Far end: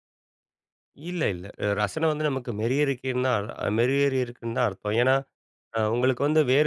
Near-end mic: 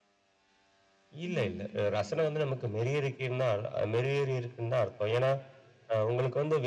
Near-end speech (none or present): present